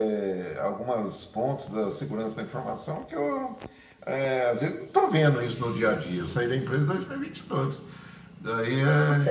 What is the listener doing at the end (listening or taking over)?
taking over